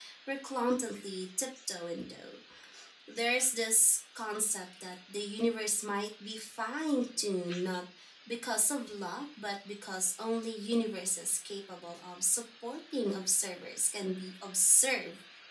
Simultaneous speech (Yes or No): No